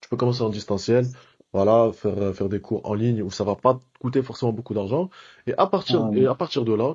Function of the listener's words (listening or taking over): listening